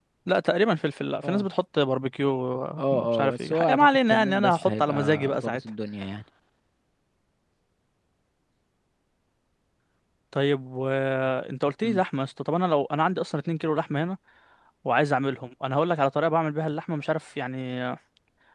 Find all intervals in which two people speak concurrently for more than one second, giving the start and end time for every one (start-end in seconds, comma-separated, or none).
2.8-5.6